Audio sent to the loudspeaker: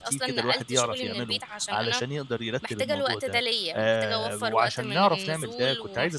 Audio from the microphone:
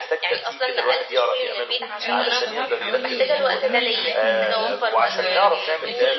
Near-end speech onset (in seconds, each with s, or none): 1.8 s